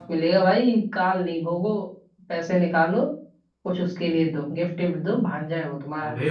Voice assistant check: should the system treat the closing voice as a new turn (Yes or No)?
Yes